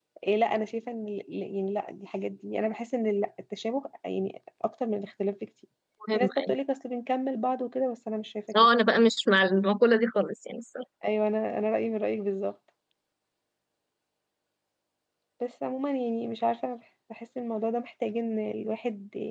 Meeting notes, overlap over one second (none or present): none